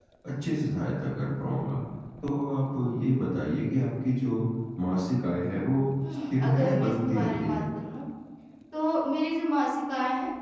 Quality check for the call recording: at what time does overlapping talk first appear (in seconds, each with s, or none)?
6.3 s